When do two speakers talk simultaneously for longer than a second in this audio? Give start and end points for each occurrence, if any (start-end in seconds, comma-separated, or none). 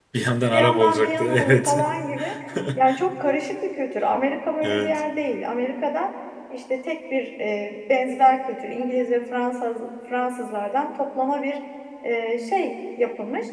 0.5-1.8